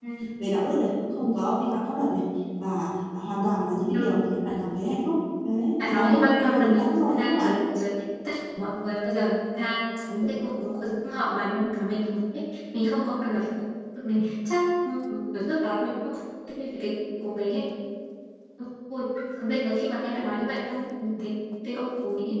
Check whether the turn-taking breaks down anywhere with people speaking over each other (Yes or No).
Yes